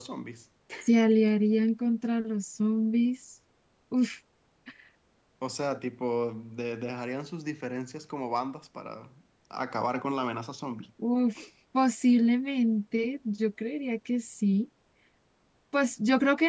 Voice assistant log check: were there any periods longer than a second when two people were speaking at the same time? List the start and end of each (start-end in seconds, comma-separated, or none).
none